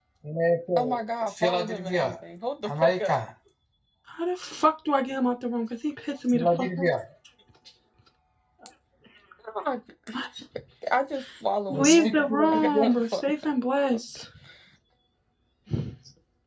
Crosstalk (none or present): present